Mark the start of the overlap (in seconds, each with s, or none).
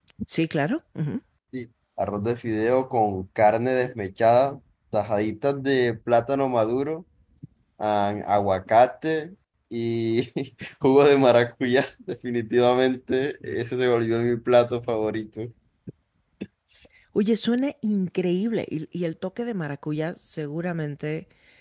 none